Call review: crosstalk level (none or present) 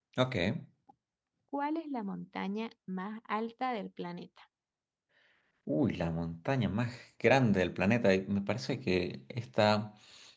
none